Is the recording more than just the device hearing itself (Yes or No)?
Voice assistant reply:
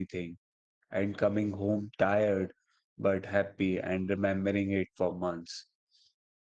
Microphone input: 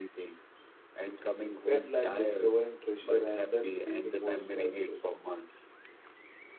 Yes